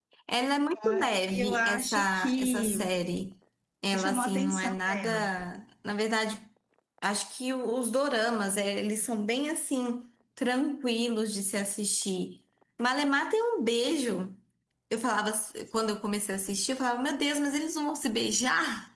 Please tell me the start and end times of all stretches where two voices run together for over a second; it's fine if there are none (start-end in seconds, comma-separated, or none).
0.8-2.7, 3.9-5.2